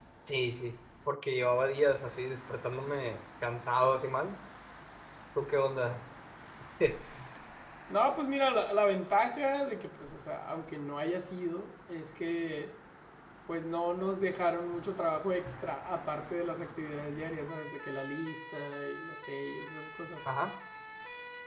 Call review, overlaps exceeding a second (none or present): none